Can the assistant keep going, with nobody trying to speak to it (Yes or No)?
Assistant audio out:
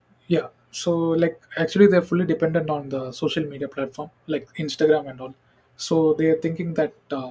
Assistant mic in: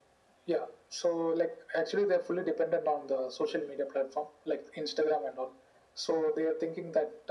Yes